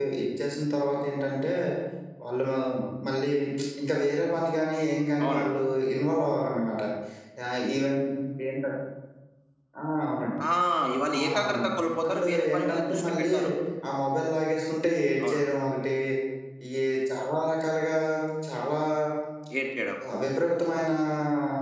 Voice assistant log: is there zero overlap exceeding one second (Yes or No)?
No